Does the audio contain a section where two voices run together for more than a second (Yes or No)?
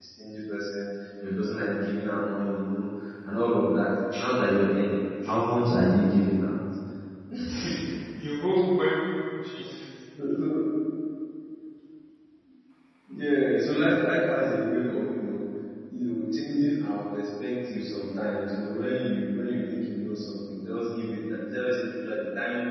No